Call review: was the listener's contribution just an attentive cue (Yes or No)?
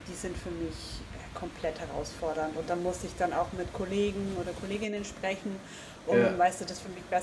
Yes